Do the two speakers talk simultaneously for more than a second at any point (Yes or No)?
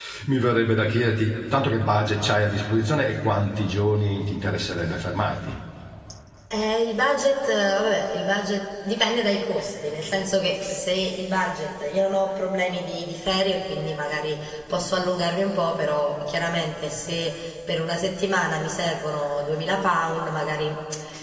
No